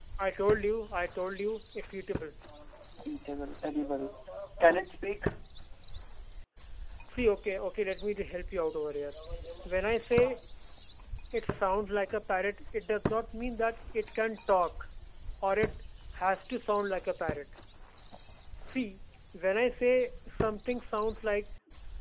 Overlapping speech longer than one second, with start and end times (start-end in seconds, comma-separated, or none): none